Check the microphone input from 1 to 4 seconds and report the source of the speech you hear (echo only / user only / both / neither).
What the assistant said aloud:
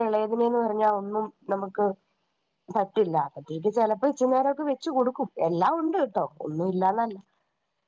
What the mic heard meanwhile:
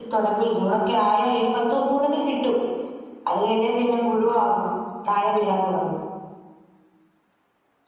user only